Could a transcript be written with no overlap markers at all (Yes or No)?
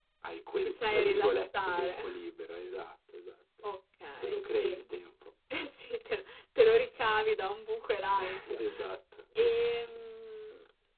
No